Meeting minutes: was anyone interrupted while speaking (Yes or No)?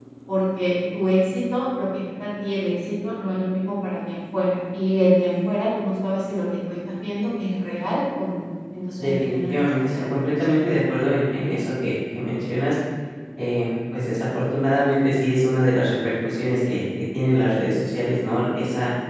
Yes